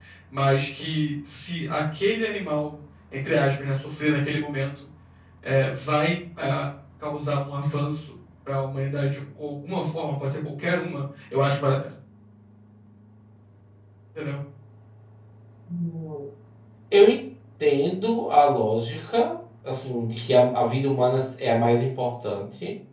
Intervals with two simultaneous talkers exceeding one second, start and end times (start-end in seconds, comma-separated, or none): none